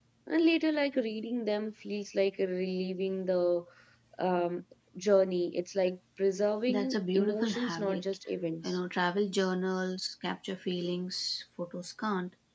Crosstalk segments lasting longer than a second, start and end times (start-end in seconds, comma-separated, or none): 6.7-8.0